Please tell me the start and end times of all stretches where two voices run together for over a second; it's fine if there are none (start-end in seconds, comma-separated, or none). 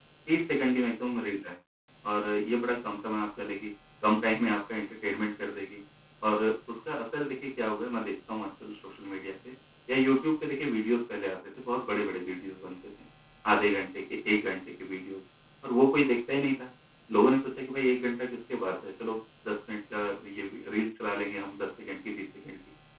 none